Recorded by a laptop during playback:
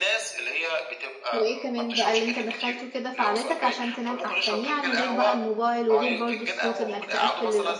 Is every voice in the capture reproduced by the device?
No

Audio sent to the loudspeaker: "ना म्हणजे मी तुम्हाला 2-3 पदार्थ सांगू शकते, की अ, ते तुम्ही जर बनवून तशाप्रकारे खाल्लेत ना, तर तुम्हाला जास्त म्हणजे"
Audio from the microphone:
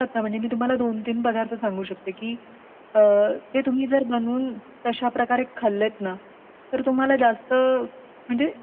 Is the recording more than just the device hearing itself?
No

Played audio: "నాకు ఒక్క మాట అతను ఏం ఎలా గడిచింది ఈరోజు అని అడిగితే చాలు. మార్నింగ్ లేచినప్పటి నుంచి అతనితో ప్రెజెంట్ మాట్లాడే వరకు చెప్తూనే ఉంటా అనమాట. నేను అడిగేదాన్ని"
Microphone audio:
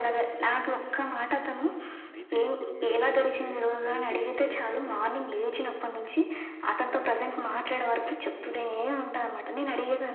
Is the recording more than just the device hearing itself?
Yes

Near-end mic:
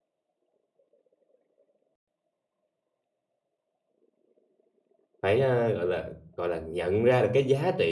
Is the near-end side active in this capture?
Yes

